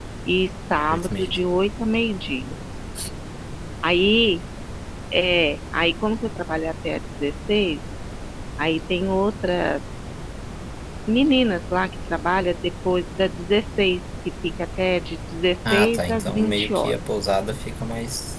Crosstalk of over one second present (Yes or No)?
Yes